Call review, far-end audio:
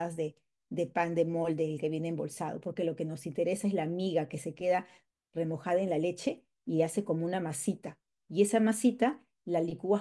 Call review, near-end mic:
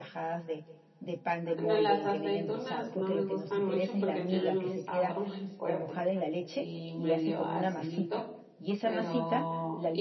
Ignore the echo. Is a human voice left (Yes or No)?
Yes